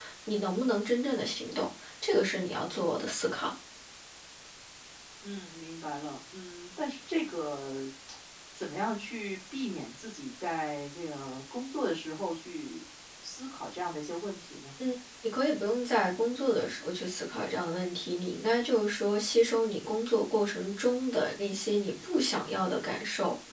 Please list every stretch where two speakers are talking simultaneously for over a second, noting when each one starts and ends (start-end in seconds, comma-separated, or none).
none